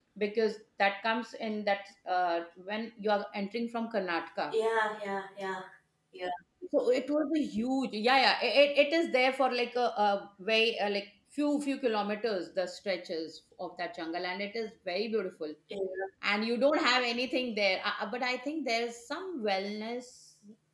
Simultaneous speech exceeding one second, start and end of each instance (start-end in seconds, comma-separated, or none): none